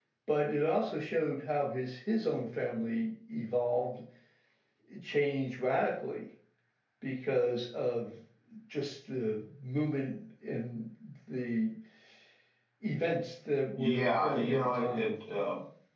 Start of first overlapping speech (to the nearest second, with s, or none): 14 s